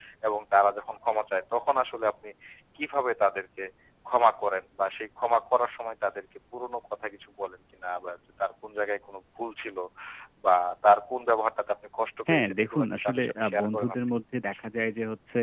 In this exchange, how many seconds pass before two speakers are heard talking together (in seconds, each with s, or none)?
12.3 s